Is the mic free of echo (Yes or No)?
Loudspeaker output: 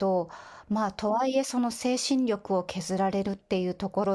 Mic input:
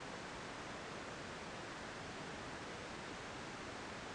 Yes